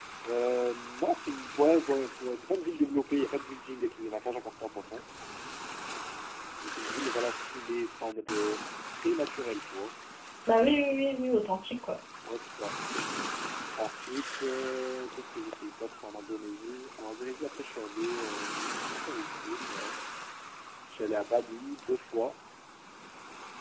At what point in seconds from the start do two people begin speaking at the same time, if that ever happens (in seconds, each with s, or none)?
none